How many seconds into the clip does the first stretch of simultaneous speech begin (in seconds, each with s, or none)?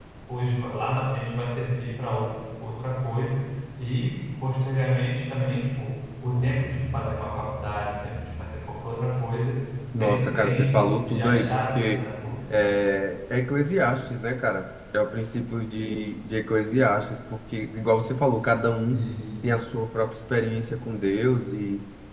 9.9 s